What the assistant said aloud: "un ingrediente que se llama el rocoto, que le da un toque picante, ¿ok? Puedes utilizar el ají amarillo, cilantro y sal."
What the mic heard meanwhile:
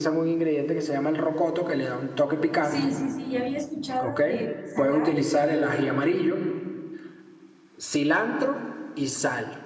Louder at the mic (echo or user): echo